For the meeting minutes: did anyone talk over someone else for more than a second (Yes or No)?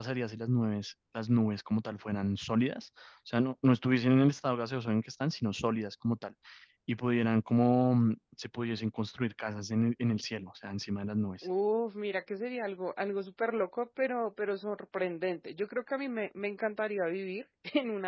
No